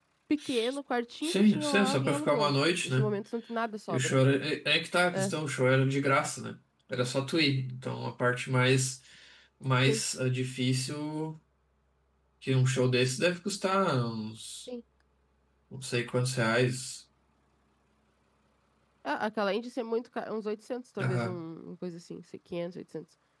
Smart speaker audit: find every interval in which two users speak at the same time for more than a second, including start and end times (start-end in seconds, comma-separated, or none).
1.2-3.1